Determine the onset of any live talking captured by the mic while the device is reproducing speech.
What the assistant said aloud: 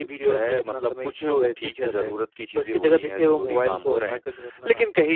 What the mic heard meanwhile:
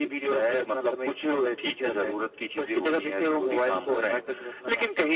none

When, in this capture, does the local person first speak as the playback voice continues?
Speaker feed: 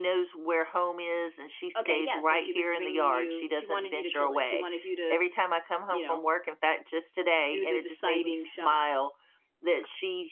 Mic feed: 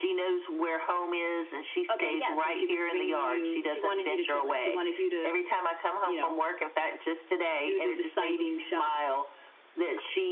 none

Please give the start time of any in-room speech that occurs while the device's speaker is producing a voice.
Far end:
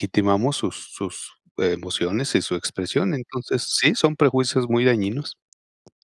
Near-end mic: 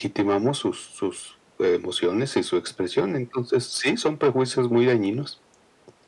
none

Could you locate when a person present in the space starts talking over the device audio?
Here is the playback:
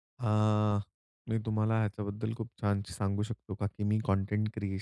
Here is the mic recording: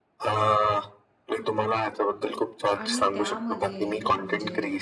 2.8 s

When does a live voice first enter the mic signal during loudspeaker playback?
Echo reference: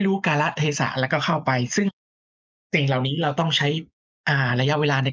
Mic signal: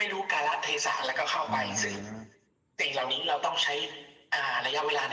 1.4 s

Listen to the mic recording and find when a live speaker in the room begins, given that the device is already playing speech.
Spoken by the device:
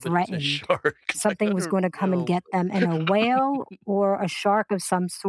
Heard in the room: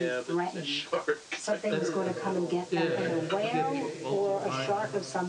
1.7 s

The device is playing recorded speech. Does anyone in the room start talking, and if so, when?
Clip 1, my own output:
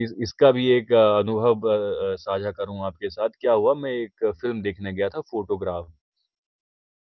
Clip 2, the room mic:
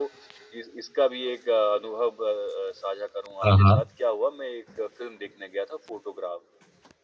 3.4 s

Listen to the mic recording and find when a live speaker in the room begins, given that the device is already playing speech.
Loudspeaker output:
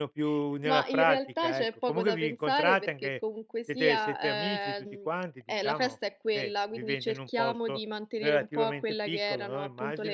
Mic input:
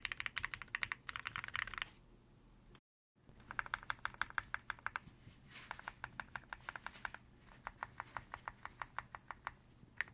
none

